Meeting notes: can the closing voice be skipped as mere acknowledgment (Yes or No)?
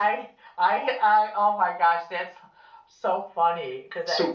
Yes